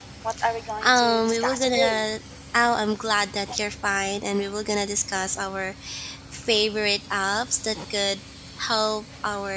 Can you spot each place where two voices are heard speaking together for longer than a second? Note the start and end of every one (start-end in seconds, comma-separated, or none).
0.8-2.0